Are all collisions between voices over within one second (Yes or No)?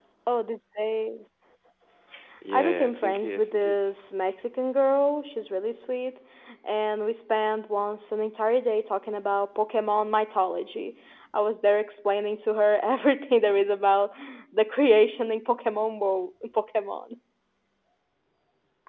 No